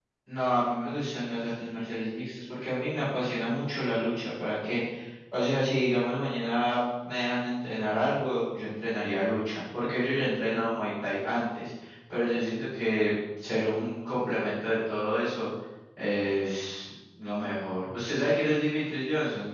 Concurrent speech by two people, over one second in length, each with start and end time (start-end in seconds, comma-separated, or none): none